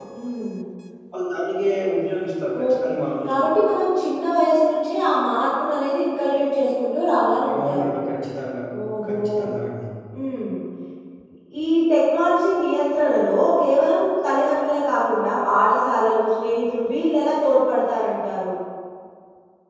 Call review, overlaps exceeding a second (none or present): none